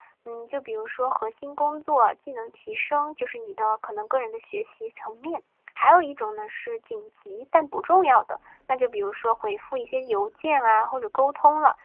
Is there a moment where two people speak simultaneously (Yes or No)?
No